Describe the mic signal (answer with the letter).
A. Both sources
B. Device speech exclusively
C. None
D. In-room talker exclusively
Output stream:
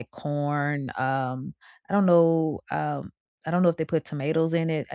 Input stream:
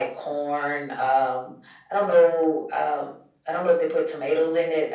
B